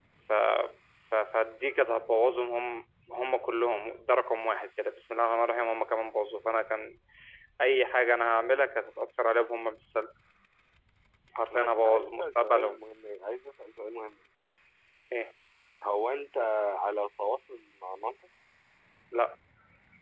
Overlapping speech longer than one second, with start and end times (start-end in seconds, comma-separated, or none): 11.5-12.8